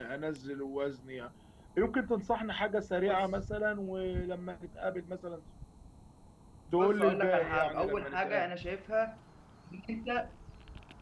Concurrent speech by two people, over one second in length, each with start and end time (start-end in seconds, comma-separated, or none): 6.7-8.5